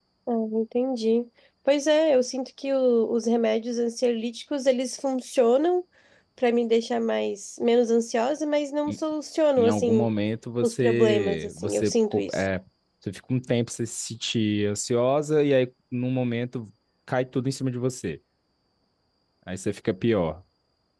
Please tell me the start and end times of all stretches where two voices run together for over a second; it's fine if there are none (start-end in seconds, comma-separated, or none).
10.6-12.4